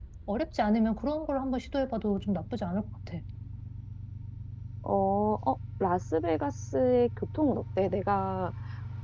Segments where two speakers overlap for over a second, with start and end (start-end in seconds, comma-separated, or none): none